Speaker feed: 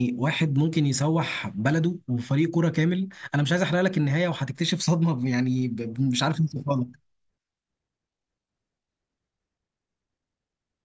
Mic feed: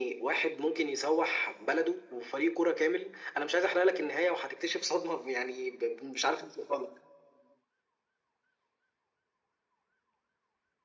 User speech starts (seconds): none

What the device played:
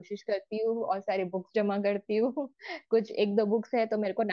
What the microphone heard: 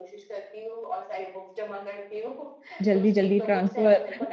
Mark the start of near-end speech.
3 s

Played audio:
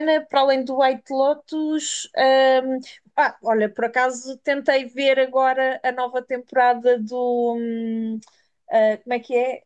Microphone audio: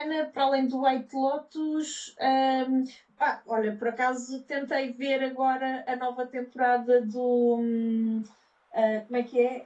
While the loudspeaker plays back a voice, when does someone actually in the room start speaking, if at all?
none

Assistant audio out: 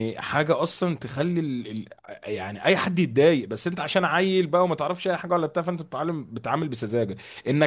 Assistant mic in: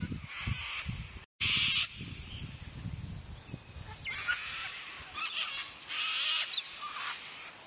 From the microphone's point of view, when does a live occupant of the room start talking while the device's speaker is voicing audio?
none

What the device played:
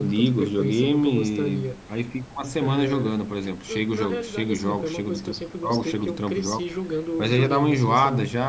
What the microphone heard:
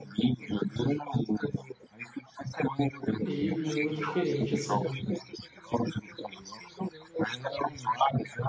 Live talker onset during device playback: 3 s

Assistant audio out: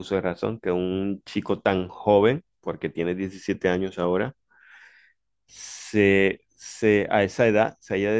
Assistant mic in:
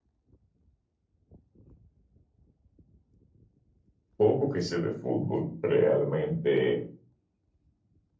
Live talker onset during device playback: 4 s

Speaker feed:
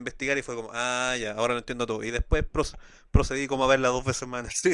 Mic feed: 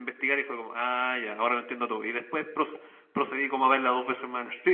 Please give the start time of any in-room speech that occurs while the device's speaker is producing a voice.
none

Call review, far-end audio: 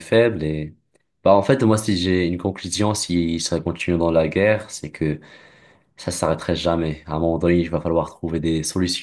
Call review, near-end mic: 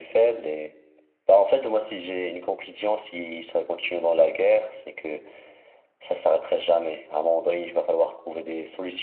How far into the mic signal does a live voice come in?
none

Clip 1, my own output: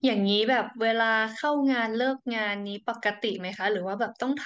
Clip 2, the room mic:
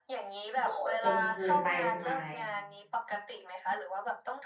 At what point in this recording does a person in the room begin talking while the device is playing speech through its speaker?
1 s

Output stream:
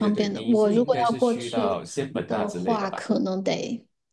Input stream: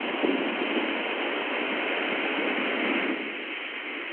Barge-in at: none

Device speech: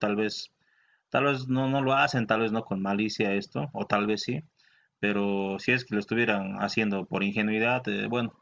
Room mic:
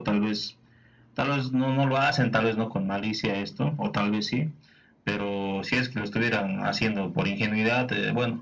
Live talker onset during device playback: none

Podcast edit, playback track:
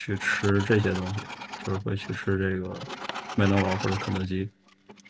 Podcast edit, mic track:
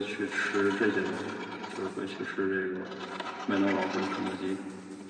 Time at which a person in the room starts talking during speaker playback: none

